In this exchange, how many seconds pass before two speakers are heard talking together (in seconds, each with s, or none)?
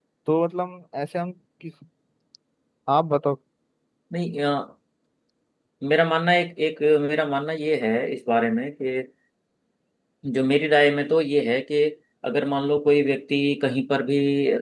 none